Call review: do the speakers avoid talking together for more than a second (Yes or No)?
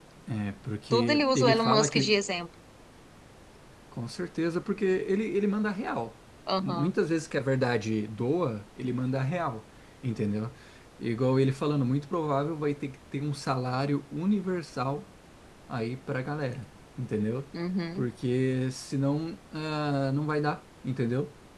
No